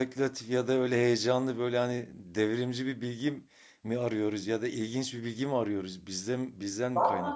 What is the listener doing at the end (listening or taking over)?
taking over